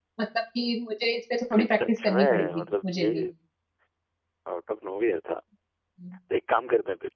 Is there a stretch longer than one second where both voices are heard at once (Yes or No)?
Yes